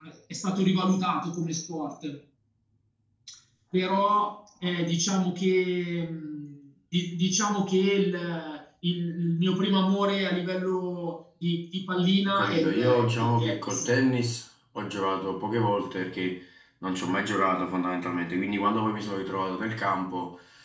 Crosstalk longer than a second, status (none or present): present